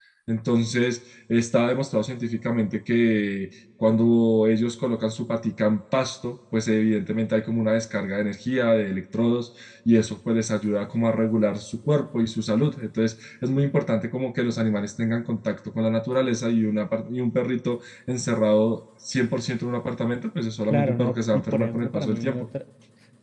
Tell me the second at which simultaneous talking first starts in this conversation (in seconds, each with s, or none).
20.7 s